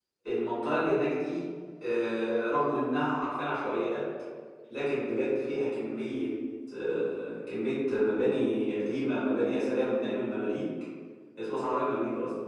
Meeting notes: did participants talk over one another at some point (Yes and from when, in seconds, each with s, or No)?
No